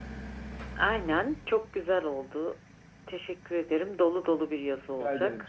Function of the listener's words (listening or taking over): taking over